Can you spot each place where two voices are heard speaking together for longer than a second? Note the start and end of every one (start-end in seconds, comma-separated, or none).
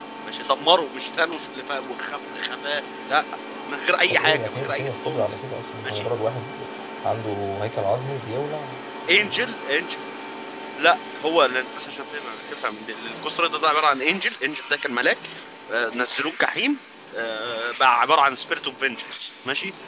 4.1-5.4